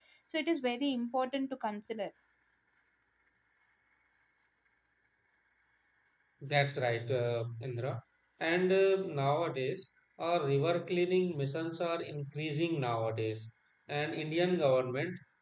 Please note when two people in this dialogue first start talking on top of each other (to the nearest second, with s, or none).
none